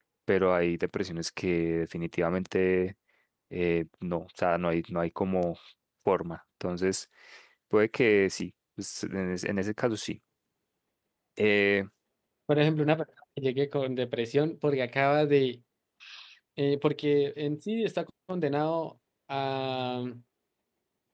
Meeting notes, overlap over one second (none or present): none